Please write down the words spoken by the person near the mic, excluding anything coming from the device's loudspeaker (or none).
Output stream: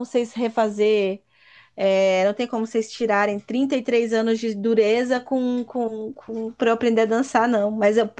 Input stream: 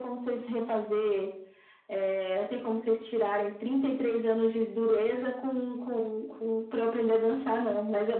none